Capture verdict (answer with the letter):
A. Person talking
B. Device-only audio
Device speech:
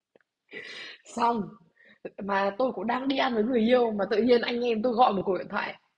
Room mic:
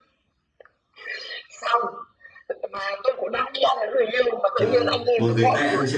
A